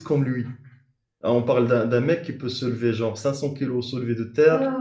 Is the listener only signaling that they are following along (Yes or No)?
No